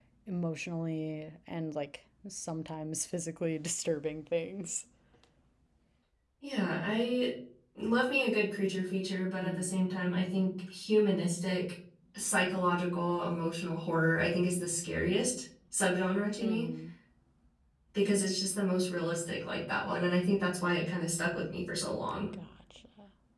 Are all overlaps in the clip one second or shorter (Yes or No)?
Yes